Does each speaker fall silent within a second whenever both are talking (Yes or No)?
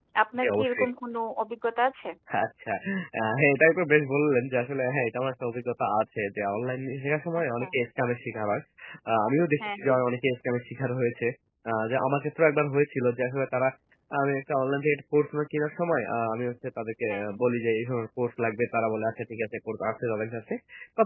Yes